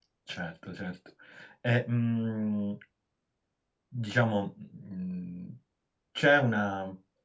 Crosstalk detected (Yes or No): No